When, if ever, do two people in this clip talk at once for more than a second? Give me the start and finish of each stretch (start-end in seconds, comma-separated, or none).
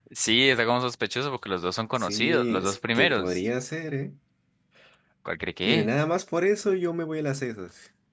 1.9-3.4